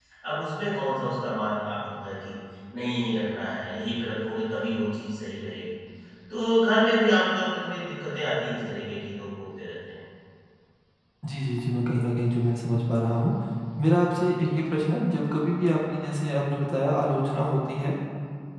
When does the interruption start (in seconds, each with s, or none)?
none